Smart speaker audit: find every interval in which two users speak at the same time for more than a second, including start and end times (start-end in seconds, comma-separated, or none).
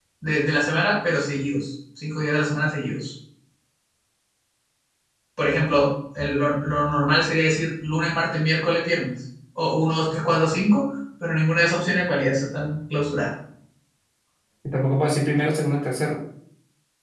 none